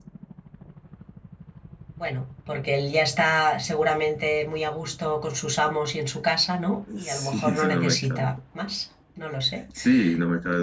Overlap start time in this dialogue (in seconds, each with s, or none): 7.0 s